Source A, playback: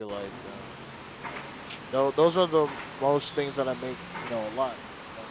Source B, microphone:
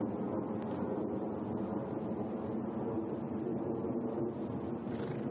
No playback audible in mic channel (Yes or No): Yes